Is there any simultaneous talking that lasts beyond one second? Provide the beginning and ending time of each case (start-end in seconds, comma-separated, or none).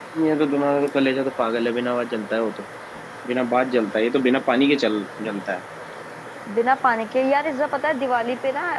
none